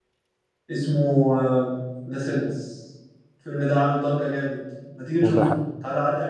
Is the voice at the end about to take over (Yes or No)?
No